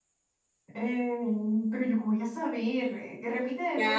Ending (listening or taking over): taking over